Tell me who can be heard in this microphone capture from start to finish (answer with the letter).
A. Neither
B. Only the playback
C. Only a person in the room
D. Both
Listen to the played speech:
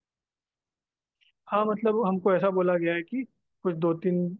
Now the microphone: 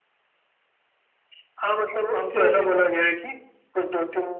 D